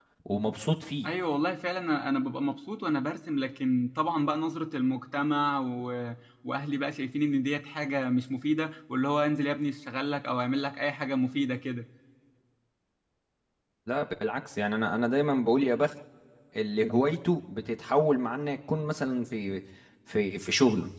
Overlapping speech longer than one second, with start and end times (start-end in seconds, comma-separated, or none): none